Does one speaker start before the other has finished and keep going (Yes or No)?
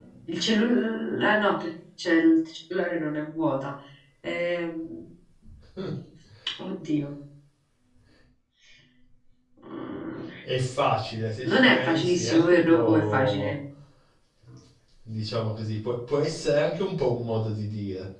Yes